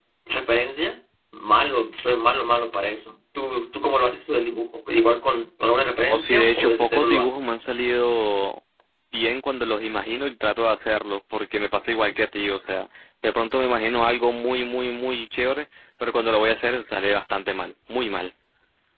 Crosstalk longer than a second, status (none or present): present